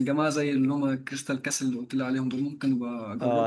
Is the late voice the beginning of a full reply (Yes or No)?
Yes